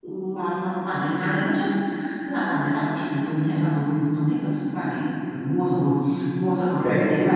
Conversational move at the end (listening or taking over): listening